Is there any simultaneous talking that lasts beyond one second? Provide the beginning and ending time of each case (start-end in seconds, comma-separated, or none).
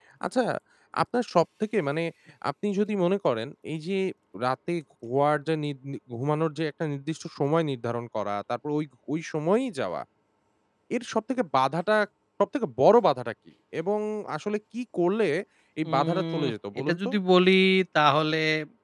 15.9-17.1